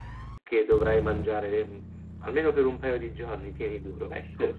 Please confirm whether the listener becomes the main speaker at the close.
Yes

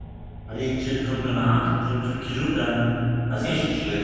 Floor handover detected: No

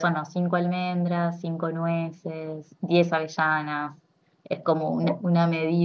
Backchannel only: Yes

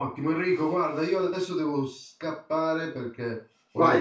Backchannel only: No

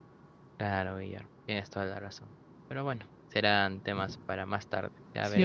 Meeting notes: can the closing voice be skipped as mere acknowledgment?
No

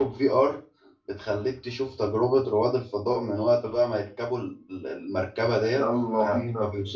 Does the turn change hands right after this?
No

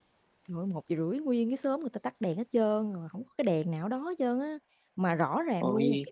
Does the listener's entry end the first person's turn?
No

